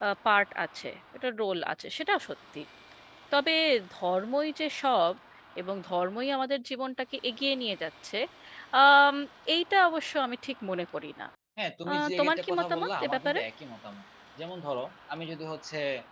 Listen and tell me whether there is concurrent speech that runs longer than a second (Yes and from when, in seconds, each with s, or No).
Yes, from 11.9 s